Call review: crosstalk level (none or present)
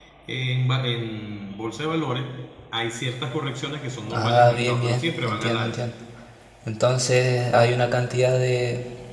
present